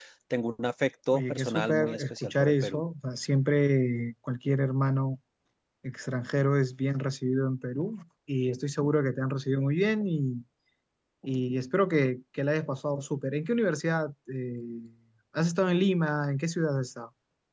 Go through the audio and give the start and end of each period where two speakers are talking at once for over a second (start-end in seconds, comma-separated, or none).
1.1-2.8